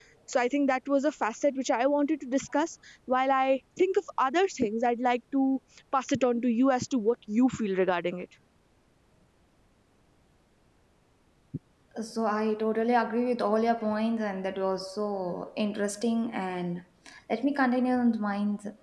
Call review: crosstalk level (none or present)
none